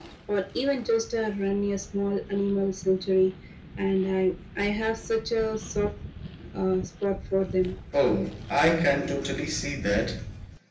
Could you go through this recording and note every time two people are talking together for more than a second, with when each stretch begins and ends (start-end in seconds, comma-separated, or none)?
none